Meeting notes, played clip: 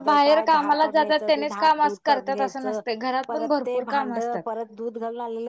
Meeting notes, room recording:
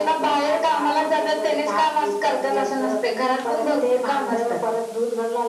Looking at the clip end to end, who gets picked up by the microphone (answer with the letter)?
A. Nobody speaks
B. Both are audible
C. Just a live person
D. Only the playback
D